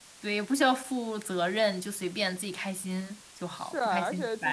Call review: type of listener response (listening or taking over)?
taking over